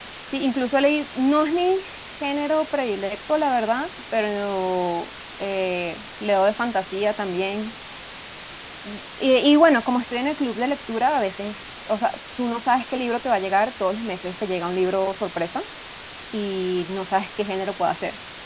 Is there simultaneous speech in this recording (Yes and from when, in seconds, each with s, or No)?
No